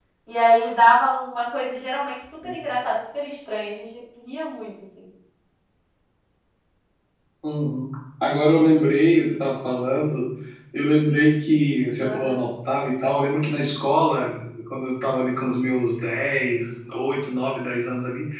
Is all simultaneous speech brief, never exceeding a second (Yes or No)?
Yes